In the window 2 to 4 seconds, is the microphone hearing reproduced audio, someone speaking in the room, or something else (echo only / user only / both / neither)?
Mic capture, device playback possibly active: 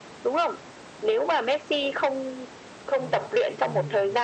both